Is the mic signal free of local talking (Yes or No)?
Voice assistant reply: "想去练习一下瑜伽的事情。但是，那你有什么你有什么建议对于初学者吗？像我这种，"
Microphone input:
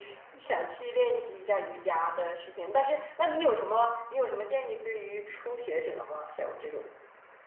Yes